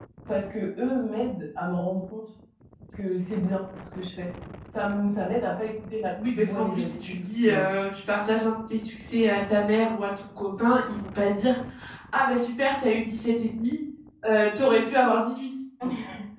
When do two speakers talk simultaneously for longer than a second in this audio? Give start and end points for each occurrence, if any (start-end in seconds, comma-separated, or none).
6.3-7.6